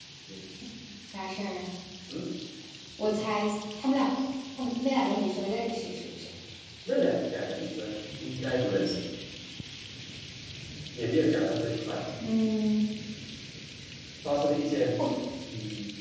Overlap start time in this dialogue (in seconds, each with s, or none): none